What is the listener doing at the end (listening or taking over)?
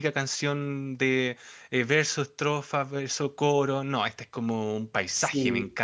taking over